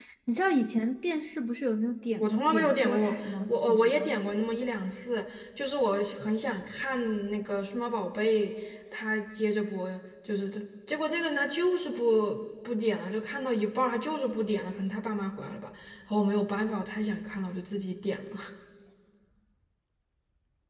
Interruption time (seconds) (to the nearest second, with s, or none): 2 s